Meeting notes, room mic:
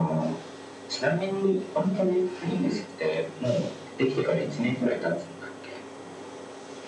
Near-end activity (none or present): none